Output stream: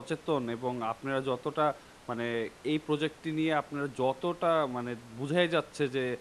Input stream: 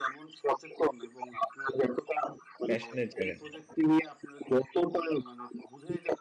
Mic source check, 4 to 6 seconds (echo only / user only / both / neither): echo only